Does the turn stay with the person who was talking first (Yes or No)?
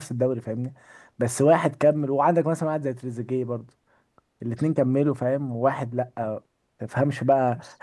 Yes